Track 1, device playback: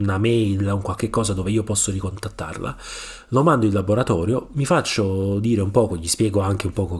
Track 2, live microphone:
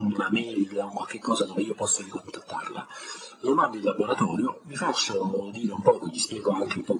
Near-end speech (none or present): none